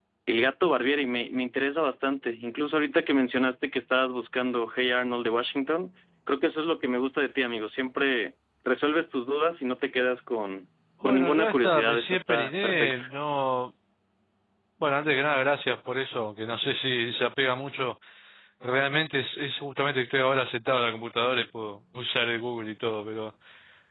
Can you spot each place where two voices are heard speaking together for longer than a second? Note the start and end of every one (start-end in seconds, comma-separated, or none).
11.0-13.0